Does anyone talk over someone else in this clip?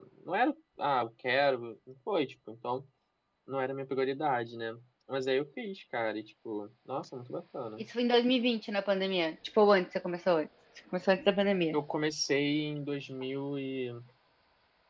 No

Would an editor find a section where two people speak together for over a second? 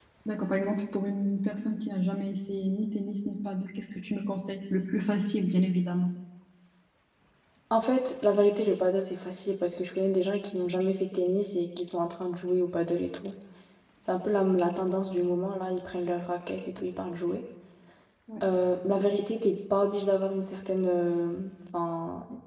No

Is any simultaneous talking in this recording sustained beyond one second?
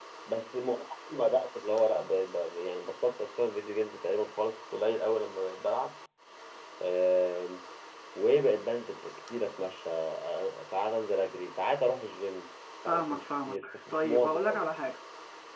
Yes, from 12.8 s

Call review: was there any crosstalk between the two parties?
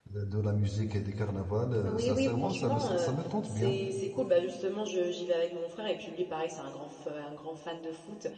Yes, from 1.8 s

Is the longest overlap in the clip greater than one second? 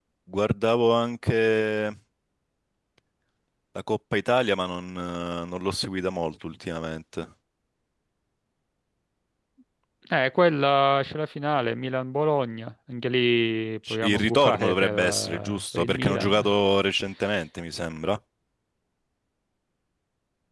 Yes, from 13.8 s

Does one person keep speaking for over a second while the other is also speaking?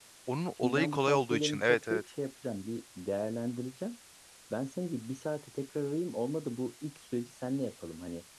Yes, from 0.6 s

